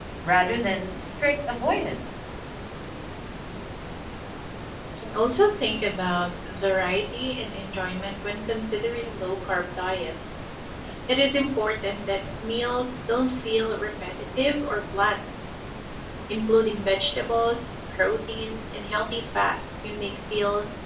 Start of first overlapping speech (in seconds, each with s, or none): none